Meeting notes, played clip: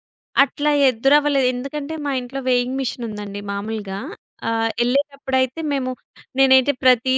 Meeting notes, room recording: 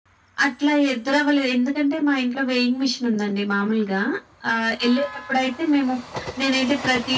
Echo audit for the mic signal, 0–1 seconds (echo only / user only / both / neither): echo only